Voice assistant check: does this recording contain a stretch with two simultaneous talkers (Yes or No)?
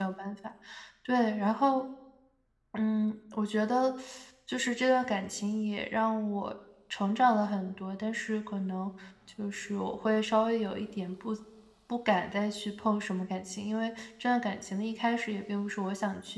No